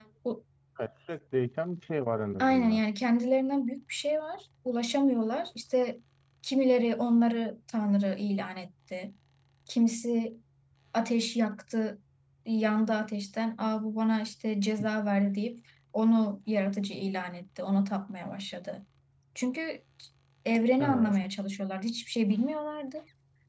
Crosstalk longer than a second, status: none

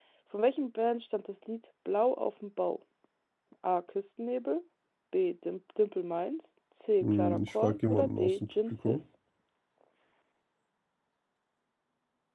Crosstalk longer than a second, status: present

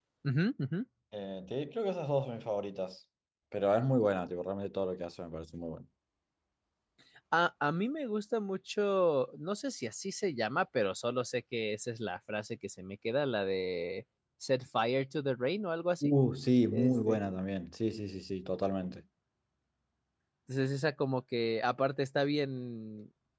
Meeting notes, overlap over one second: none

